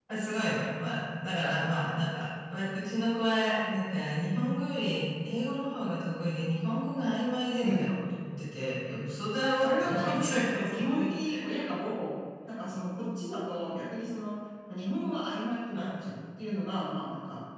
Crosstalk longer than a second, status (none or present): present